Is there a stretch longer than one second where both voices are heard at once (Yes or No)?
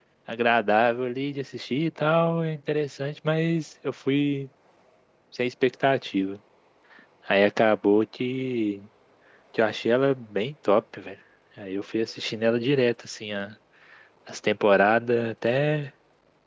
No